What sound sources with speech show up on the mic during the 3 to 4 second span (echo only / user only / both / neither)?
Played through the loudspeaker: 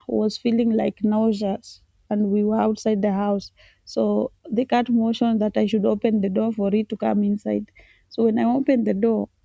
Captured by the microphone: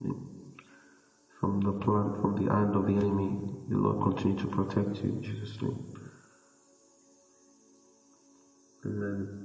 user only